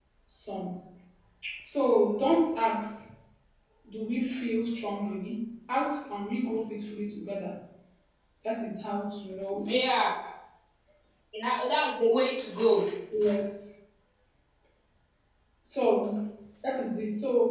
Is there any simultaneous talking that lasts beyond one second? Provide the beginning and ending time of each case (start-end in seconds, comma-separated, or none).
none